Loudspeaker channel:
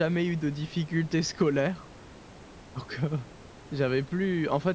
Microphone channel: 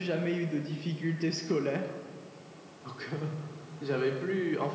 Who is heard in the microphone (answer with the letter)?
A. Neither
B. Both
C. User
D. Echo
D